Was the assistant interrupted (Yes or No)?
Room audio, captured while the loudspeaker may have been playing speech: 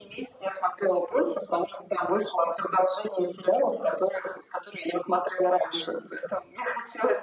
No